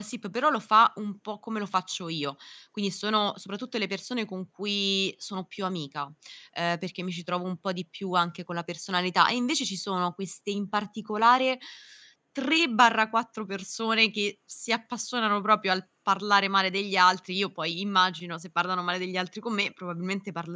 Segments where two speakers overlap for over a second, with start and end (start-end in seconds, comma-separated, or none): none